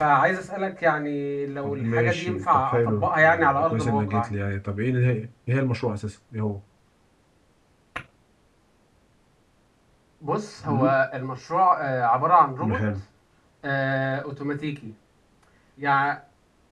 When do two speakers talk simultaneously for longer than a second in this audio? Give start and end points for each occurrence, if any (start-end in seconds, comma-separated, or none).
1.6-4.3